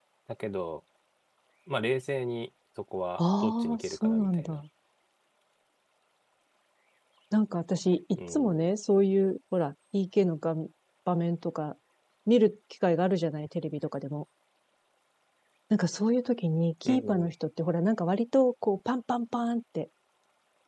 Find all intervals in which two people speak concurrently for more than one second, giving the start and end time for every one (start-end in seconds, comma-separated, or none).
3.2-4.6